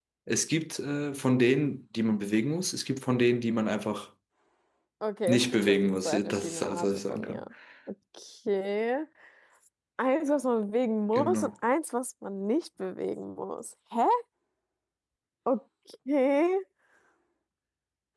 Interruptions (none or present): present